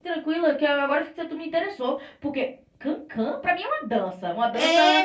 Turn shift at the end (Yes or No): Yes